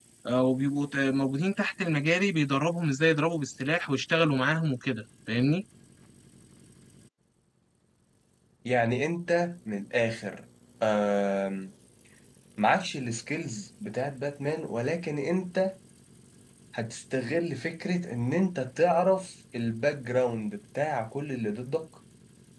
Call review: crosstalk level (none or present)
none